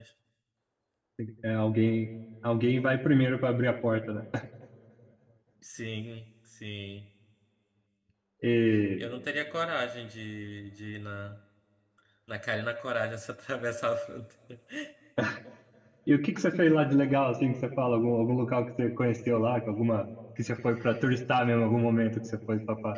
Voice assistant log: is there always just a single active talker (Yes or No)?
Yes